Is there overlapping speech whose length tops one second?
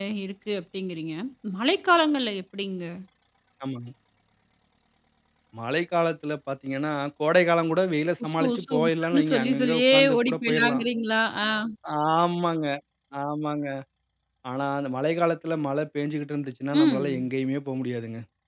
Yes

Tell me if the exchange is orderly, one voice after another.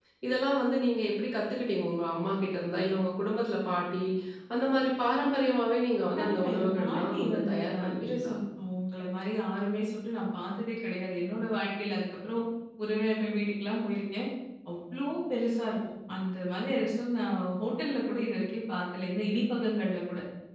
No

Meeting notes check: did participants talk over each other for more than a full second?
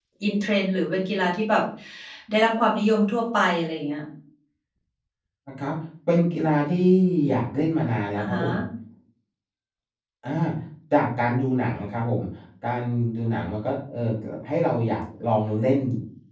No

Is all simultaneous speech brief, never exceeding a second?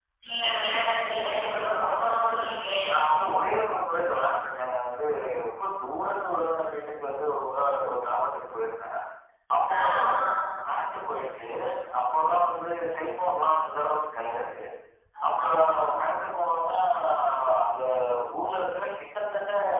Yes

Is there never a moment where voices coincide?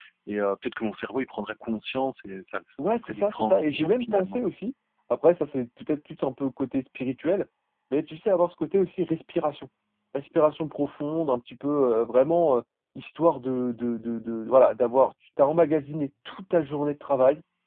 No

